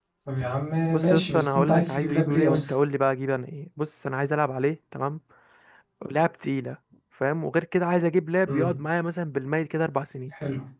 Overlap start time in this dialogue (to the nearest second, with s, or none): 1 s